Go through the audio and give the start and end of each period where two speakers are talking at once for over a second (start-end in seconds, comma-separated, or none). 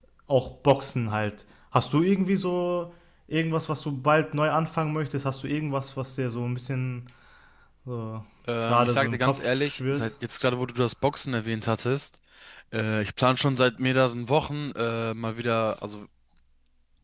8.6-10.1